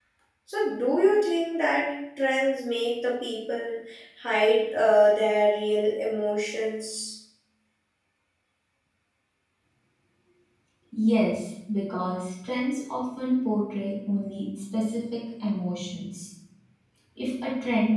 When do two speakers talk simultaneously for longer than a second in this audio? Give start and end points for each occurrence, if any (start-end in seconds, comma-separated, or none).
none